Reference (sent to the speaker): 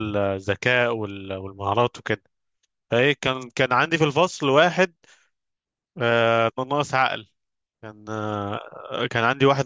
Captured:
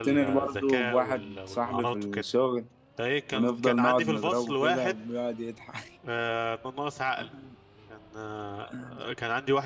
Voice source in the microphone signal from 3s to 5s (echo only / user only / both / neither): both